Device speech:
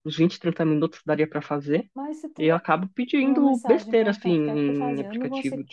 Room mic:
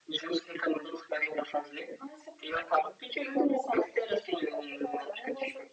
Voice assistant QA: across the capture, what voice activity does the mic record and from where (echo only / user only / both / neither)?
echo only